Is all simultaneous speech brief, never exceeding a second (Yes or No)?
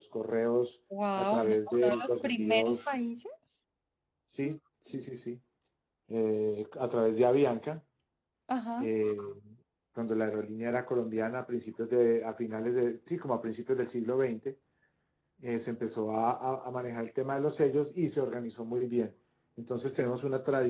No